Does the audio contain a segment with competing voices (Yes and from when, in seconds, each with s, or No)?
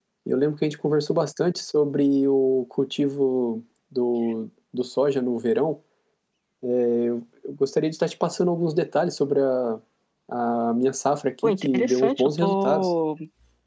Yes, from 11.4 s